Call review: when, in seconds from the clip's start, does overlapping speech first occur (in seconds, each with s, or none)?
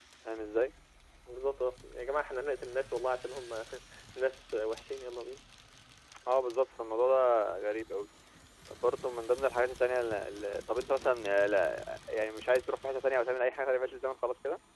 none